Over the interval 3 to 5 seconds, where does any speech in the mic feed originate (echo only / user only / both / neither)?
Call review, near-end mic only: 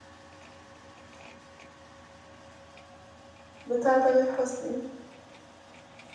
user only